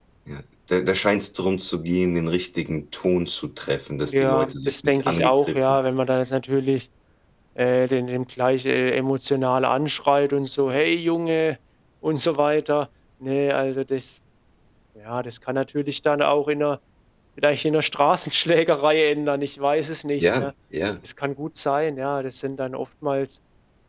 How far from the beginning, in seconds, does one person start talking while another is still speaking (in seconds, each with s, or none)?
4.1 s